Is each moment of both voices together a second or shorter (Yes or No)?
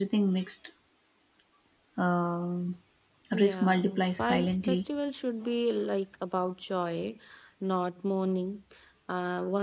No